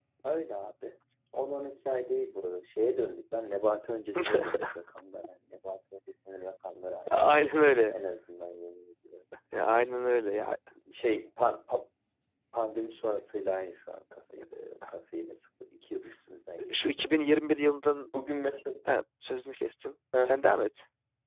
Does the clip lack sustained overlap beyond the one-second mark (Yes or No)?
Yes